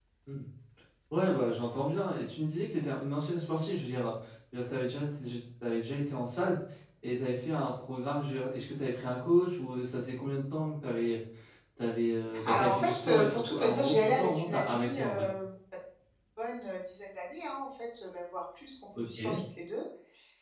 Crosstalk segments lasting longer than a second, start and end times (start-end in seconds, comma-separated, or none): 12.4-15.3